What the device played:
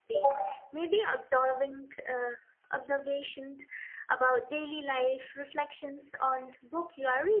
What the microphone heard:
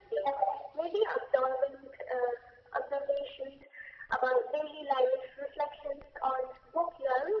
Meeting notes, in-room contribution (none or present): none